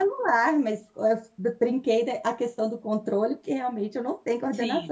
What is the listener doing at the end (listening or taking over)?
taking over